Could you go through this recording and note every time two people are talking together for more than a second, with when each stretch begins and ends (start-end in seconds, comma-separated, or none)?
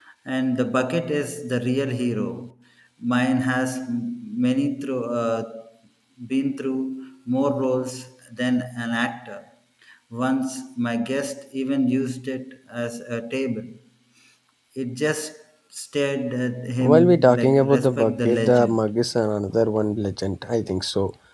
16.8-18.8